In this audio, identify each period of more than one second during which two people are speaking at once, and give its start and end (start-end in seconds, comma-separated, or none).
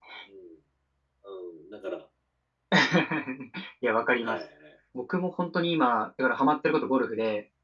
none